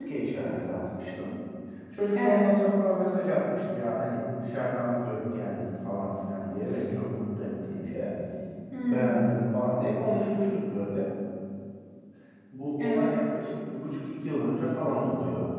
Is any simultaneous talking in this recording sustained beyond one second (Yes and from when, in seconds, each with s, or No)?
No